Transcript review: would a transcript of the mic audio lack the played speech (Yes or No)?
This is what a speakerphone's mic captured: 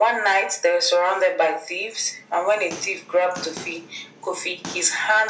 No